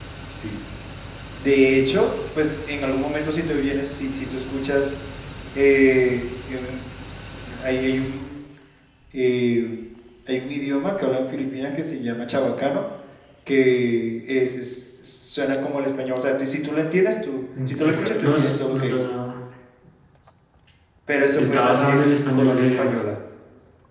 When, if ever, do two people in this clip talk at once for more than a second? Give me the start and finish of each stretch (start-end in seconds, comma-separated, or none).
17.7-19.0, 21.4-23.0